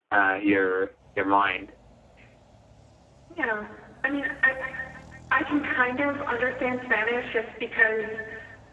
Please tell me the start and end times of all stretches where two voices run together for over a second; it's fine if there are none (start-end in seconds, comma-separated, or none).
none